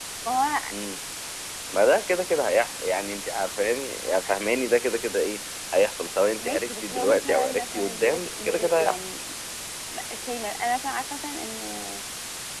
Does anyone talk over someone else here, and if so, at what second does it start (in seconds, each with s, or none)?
6.4 s